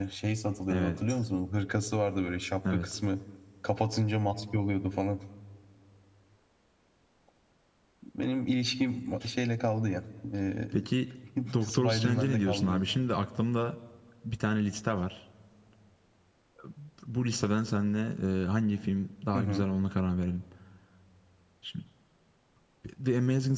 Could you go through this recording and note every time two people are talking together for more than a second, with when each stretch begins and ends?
11.6-12.8

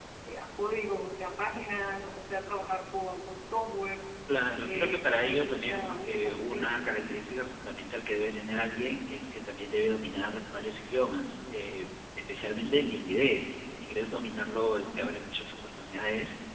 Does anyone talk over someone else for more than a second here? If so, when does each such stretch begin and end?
4.7-7.0

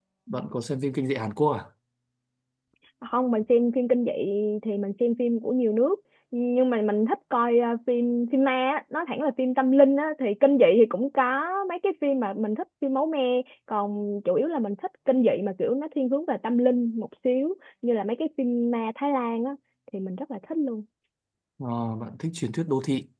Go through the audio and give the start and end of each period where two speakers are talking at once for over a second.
none

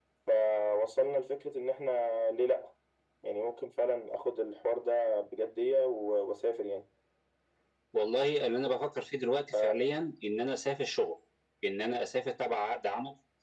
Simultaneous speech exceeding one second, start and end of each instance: none

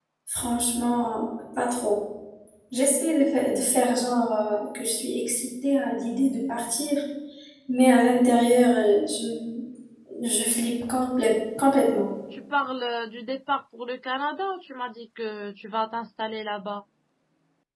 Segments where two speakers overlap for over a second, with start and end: none

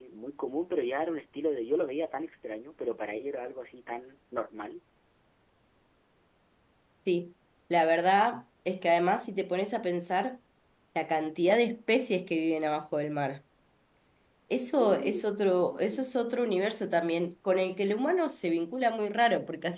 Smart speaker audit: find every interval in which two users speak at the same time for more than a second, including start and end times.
14.8-16.0

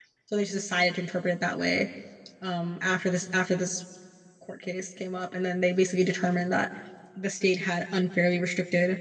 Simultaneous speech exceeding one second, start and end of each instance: none

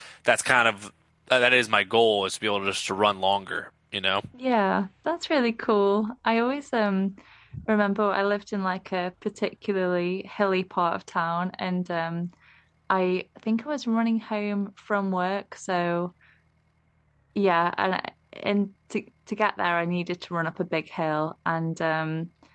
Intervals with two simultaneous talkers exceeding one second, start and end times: none

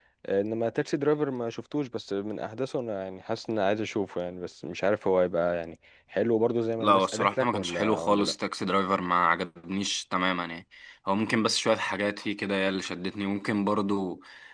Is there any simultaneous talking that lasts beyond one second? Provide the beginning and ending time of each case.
6.8-8.3

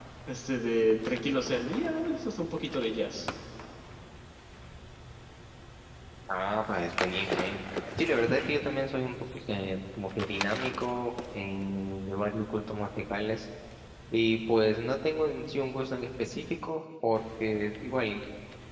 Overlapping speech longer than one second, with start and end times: none

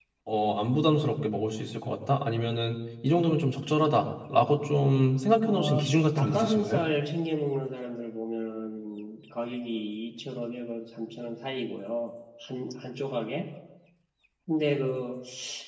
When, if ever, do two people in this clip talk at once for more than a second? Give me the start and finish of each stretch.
5.4-6.8

